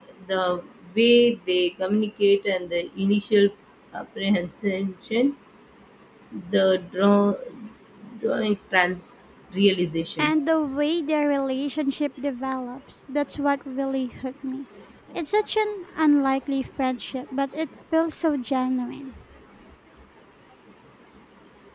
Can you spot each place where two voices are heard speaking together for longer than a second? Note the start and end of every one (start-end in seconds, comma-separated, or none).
none